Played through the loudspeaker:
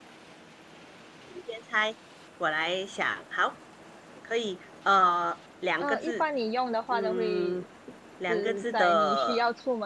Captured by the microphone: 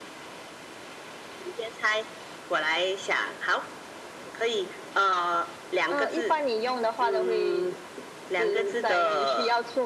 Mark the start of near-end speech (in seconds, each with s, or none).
none